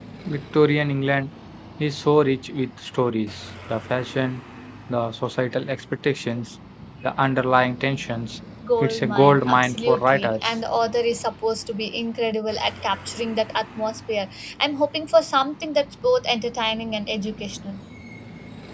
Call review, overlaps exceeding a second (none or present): present